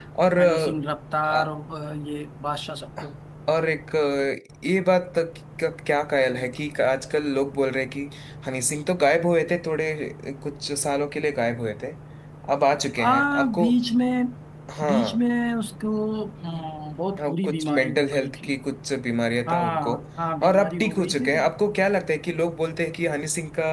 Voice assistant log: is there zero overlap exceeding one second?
No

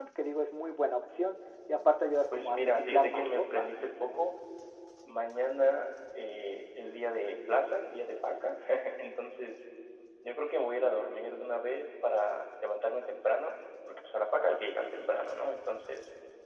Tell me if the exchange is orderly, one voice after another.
No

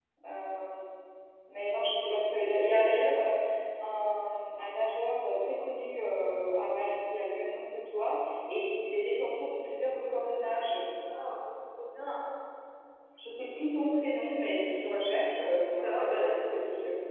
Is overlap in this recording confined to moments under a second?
No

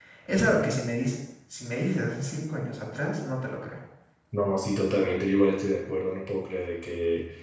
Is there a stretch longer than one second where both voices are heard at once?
No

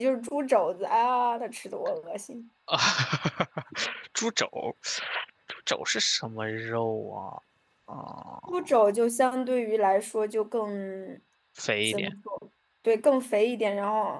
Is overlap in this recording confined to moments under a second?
Yes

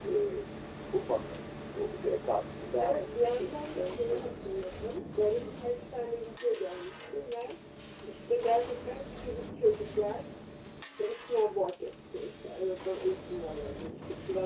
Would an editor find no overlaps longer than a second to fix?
No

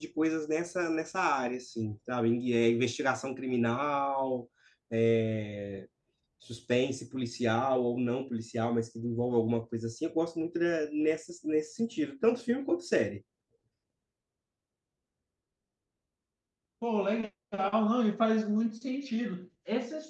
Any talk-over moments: No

